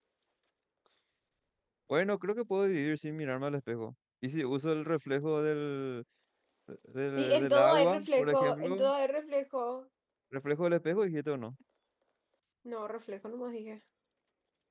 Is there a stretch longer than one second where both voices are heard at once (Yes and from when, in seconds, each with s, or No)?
Yes, from 7.2 s